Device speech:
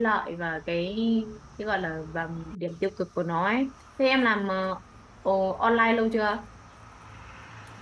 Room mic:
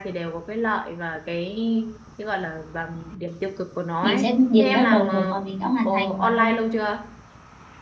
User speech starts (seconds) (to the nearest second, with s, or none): 4 s